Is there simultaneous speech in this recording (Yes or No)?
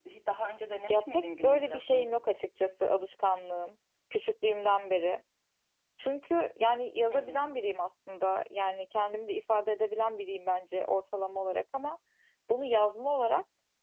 Yes